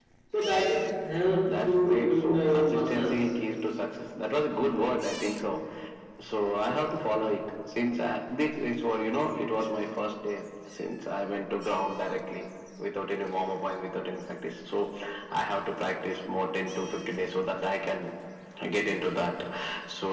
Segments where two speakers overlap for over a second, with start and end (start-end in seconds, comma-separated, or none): 1.5-3.3